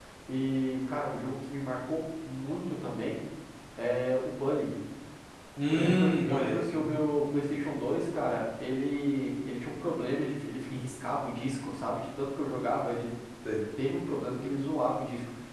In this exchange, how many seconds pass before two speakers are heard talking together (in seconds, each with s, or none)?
5.7 s